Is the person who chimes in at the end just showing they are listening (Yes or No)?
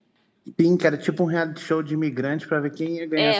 No